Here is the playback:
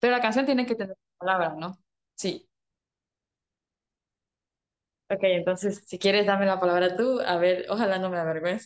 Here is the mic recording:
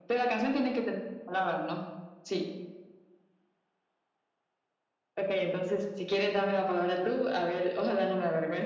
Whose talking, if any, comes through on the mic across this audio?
echo only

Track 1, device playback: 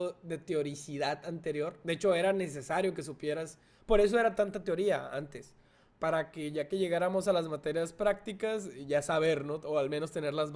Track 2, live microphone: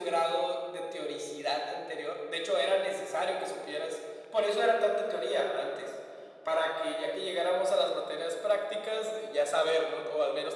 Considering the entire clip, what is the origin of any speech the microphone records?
echo only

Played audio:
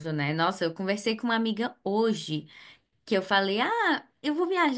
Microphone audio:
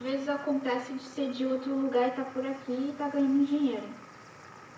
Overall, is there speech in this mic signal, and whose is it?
user only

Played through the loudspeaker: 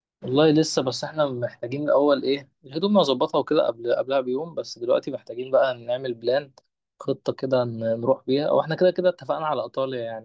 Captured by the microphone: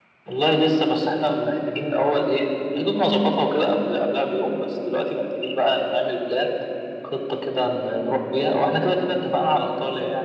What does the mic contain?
echo only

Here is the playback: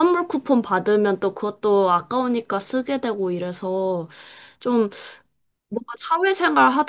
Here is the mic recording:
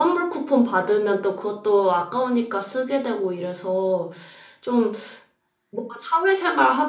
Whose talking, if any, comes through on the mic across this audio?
echo only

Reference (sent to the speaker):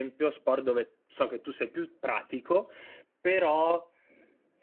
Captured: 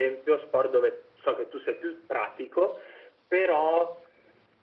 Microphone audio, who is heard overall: echo only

